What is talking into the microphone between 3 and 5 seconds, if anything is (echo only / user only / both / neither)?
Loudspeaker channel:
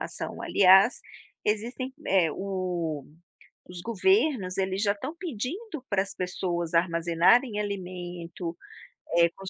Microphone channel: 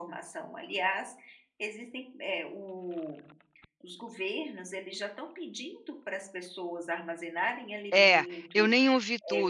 echo only